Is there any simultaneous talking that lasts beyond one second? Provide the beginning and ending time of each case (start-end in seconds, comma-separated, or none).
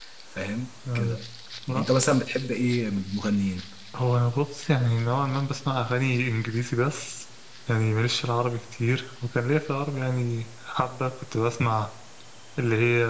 none